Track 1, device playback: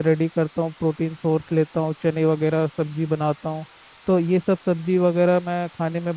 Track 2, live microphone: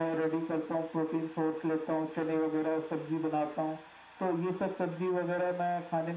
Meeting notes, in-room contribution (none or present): none